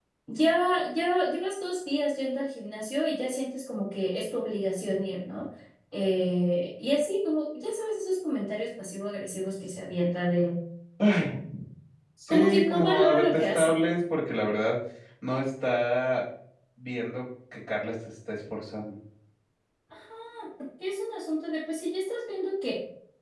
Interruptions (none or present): present